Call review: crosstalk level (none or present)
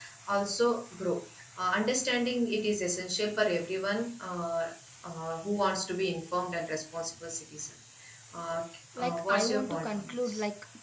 present